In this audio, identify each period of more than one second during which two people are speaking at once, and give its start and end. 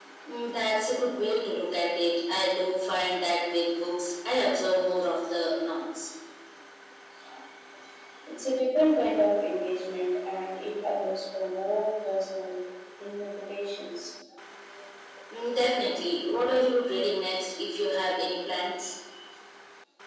none

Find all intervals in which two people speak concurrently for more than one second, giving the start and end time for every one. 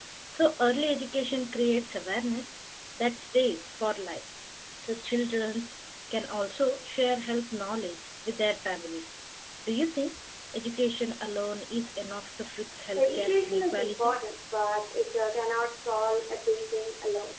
12.9-14.2

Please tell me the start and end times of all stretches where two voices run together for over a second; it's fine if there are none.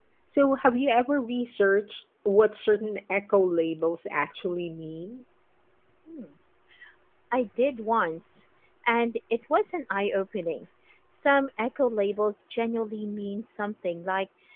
none

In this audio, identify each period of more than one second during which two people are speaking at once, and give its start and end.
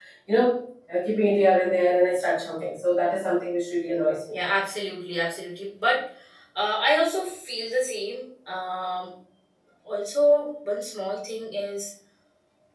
none

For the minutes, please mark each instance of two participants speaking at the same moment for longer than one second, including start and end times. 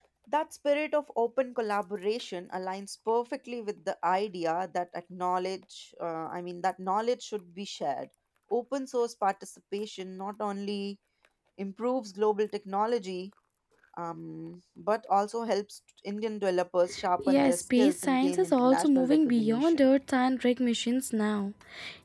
17.2-19.9

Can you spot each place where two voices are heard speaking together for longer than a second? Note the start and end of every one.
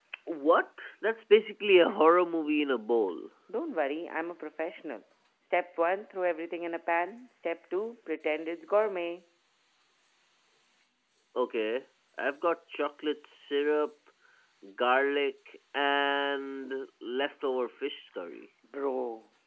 none

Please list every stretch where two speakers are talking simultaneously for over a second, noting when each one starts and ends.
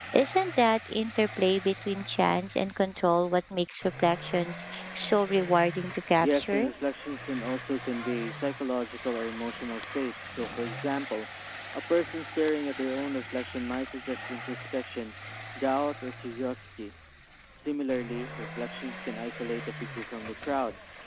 none

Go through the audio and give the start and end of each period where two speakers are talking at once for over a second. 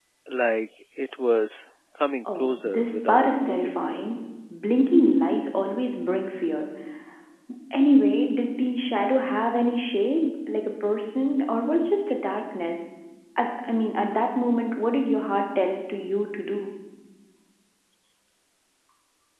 2.4-3.8

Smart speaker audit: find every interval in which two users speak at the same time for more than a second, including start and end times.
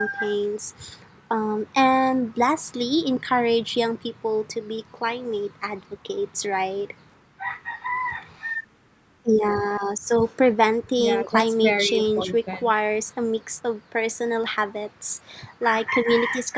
11.0-12.7

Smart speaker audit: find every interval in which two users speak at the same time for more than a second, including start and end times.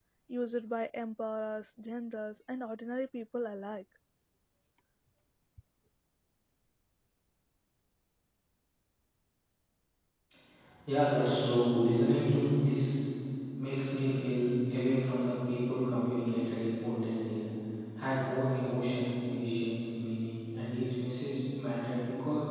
none

